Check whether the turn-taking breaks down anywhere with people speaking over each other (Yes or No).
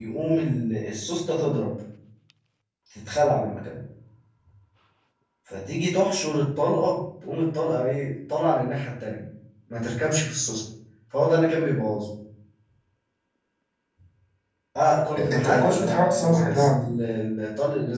Yes